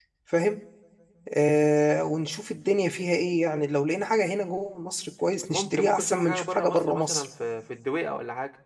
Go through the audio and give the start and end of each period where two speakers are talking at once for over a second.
5.5-7.2

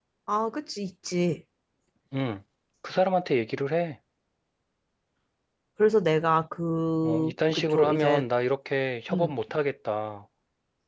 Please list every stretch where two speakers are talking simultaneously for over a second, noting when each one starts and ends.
7.0-8.2

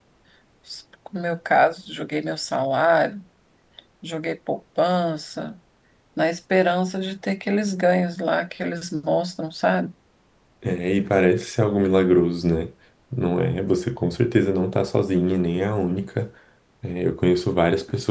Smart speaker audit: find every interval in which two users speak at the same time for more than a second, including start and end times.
none

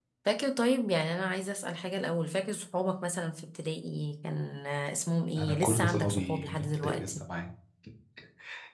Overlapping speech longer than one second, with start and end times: 5.4-7.2

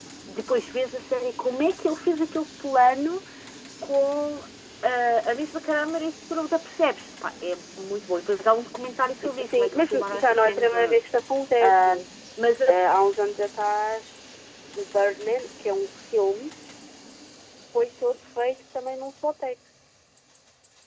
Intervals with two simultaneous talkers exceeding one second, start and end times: 9.4-11.0

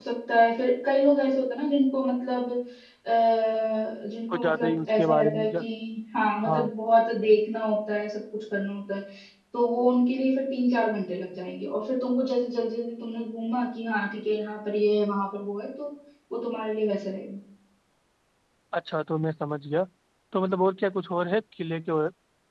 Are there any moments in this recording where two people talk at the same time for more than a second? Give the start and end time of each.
4.3-5.6

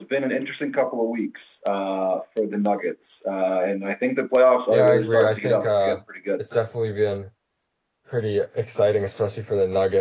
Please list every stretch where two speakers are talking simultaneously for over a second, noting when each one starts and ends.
4.7-6.0

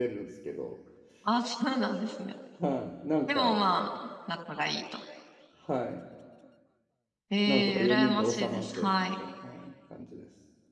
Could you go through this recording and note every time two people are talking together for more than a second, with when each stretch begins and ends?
7.5-9.2

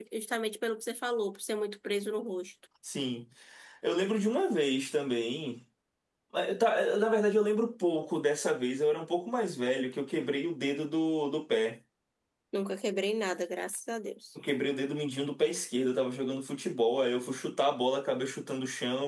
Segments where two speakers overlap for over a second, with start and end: none

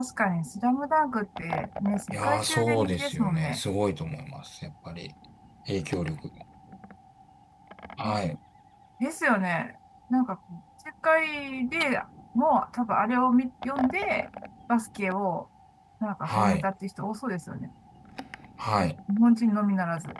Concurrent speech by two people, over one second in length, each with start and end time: 2.1-3.6

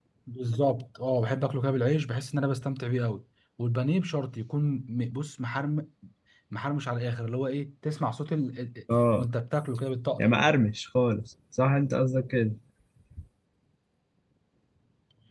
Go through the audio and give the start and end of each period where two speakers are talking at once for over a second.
none

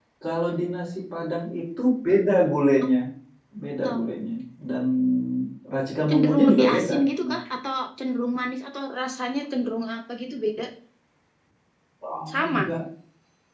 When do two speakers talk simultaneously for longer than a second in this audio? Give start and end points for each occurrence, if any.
6.1-7.4

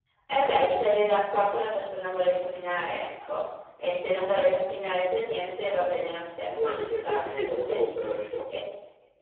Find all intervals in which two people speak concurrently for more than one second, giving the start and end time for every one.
6.5-7.9

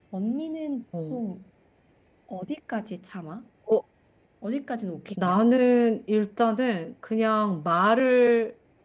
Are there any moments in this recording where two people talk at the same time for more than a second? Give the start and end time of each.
none

